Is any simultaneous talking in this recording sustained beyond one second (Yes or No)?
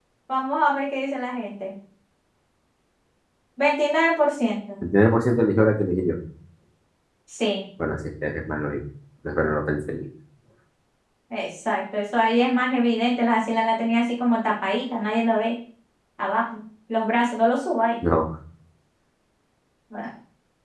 No